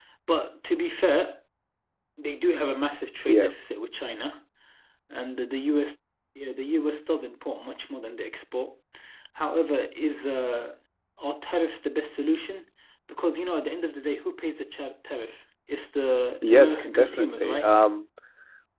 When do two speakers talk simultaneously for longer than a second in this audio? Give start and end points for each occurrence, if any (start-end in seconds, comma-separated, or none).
16.4-17.7